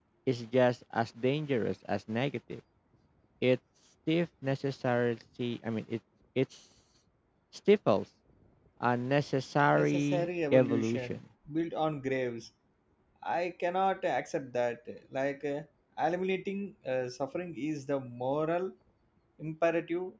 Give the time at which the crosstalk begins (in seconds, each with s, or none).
9.7 s